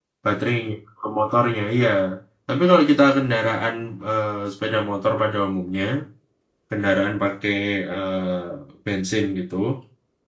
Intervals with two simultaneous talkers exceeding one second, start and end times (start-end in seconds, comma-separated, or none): none